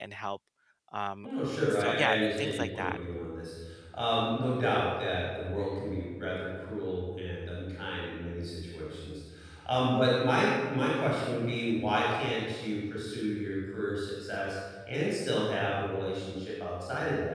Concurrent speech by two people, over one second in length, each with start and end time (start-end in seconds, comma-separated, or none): 1.7-3.0